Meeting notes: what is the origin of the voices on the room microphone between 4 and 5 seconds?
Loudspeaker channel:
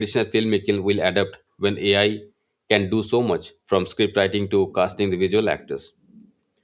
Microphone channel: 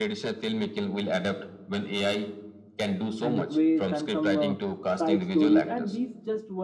both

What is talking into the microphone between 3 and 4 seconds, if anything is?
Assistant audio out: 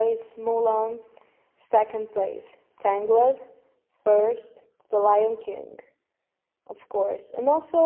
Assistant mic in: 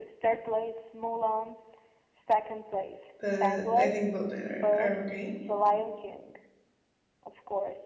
both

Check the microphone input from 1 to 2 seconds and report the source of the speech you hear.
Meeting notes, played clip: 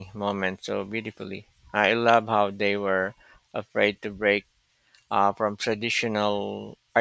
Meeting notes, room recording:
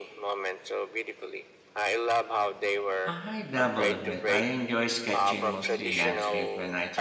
echo only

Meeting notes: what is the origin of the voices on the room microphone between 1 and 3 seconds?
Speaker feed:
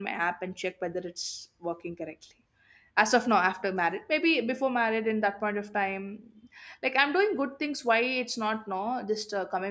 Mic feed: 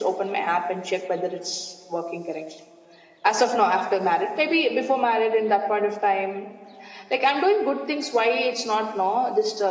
echo only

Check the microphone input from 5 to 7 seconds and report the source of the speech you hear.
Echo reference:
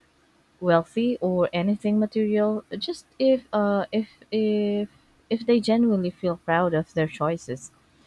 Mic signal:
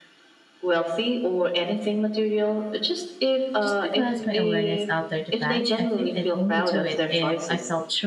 both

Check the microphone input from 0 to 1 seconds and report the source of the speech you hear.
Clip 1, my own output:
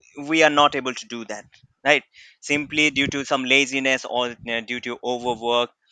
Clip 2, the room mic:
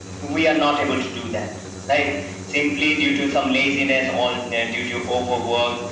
echo only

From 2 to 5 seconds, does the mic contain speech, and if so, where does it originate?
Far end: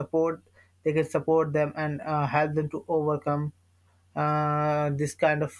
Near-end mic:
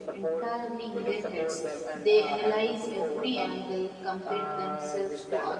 both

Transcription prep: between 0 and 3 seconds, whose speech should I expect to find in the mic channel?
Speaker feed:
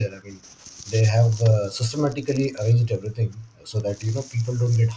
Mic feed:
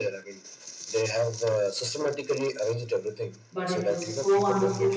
echo only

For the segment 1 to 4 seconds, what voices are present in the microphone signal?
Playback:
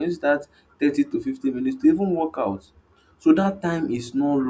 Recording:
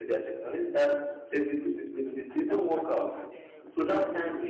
both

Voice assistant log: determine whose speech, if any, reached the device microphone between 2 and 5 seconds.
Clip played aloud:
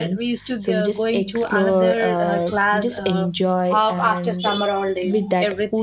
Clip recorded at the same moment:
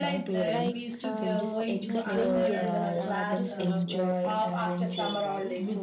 both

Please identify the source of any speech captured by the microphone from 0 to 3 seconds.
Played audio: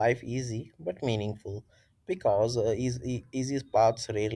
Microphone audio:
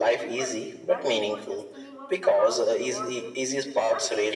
both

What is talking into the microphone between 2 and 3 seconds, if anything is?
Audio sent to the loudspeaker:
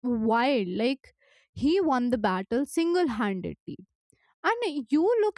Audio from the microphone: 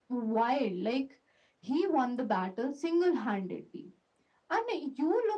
echo only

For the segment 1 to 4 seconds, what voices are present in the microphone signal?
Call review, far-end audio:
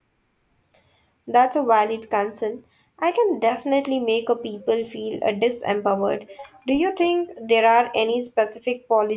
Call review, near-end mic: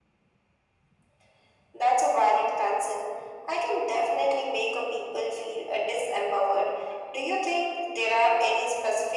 echo only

